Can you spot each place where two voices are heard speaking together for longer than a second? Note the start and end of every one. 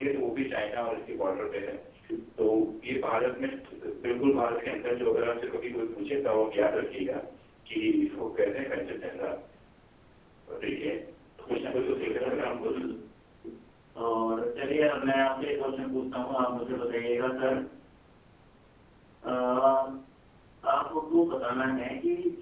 11.5-12.8

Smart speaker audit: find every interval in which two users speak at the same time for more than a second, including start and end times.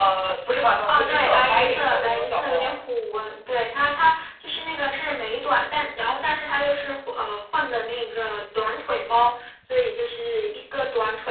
0.9-2.7

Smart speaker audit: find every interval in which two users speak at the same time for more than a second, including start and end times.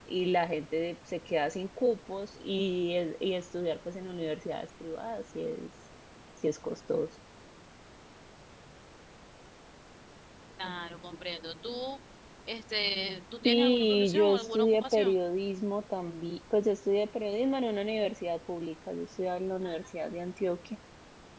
13.4-15.2

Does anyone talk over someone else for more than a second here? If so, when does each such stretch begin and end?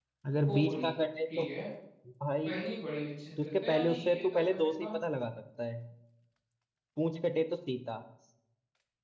3.4-4.9

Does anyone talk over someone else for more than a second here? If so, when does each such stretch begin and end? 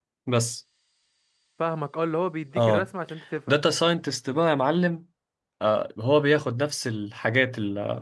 none

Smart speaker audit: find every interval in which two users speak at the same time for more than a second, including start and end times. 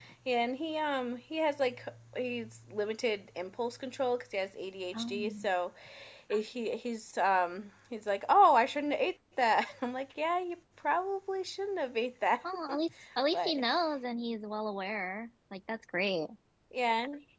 none

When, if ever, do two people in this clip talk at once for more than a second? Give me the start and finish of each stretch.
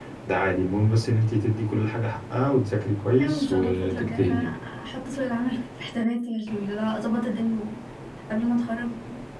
3.2-4.5

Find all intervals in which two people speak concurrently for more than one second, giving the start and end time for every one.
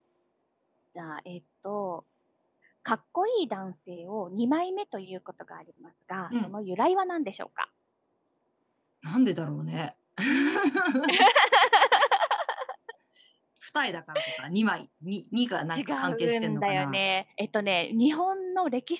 15.8-17.0

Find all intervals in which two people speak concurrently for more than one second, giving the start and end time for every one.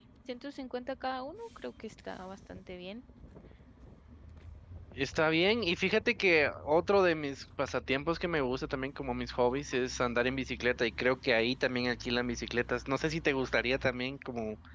none

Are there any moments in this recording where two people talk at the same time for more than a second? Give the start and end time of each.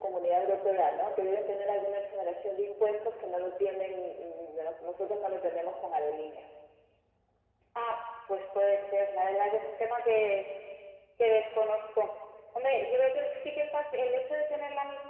none

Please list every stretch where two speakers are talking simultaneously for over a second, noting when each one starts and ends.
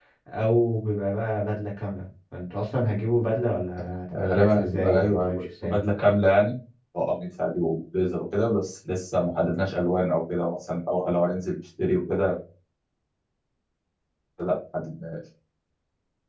4.3-5.8

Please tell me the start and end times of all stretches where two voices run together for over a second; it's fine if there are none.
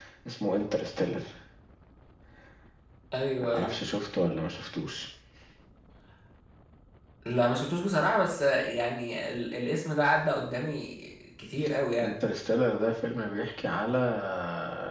none

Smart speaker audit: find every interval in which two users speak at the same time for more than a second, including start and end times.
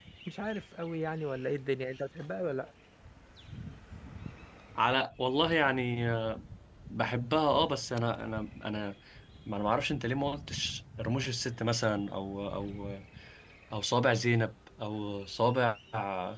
none

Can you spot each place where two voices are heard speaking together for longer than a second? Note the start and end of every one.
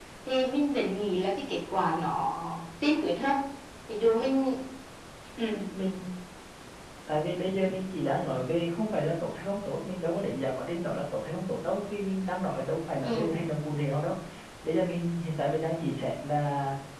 none

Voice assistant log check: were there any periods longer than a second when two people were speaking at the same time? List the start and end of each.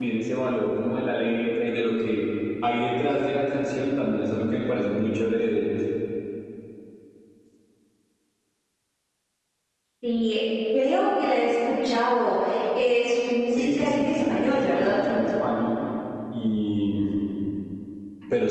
13.5-15.0

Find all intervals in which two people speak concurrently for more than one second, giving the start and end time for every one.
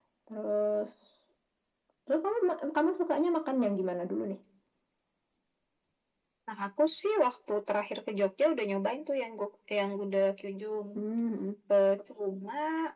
none

